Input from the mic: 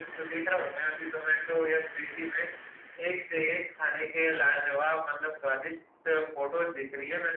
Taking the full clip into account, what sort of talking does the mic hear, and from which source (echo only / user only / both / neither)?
echo only